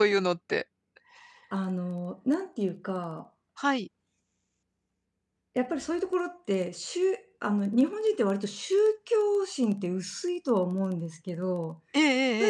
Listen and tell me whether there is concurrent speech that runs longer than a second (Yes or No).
No